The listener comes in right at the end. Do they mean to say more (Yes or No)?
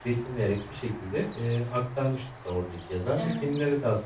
No